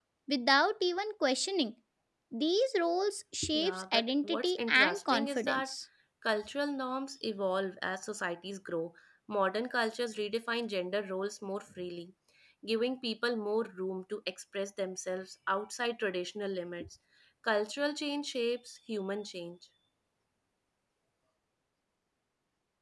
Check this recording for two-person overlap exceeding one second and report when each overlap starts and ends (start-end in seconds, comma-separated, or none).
3.5-5.7